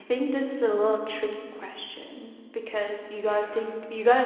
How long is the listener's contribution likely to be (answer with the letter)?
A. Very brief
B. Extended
A